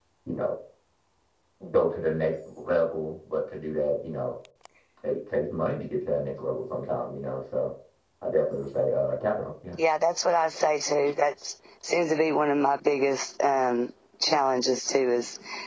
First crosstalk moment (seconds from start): none

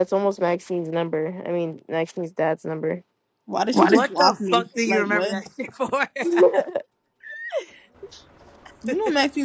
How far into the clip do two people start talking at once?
4 s

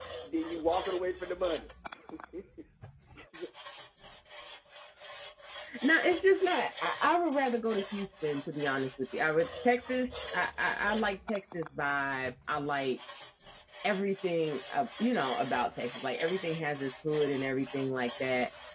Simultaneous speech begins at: none

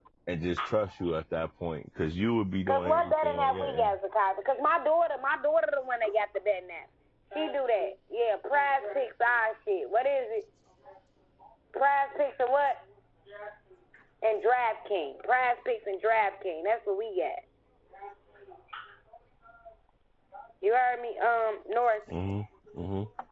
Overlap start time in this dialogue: 3 s

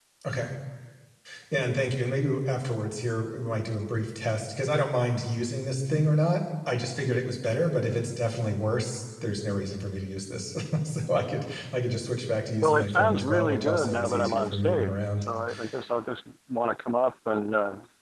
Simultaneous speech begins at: 13 s

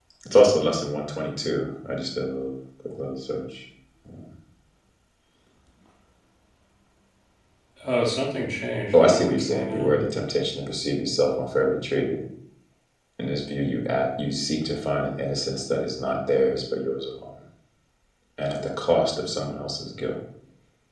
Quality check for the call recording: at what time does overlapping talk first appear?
9 s

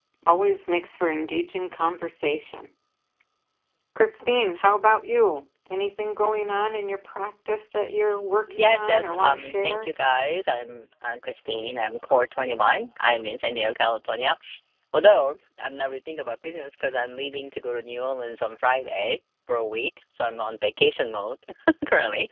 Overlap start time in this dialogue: 8 s

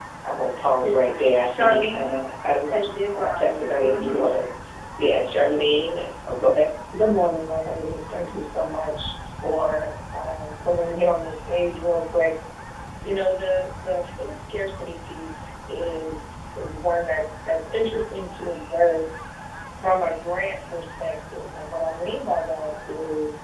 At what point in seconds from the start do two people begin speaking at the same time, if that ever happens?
1 s

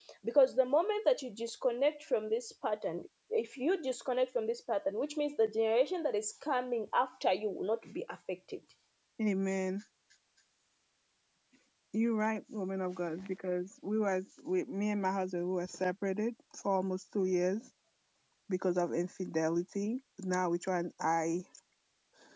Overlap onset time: none

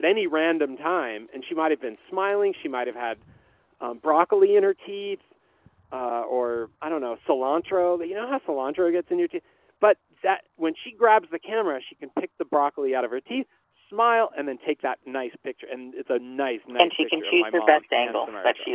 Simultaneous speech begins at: 17 s

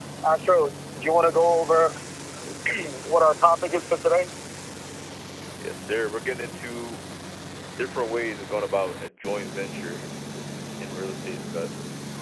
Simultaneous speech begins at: none

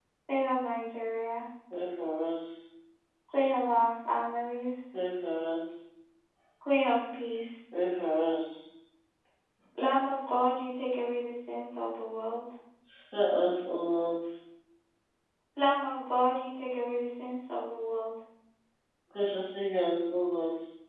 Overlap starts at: none

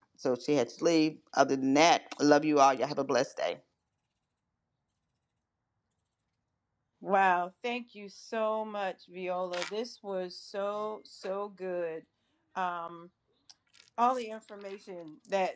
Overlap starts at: none

